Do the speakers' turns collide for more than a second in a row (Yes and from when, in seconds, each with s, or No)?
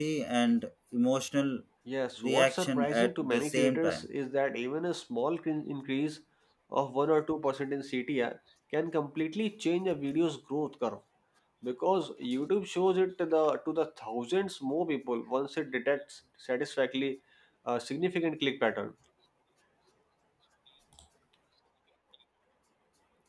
Yes, from 2.2 s